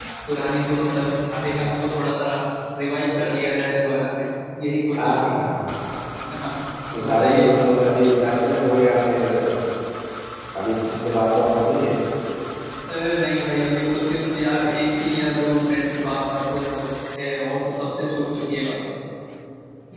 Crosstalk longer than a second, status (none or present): none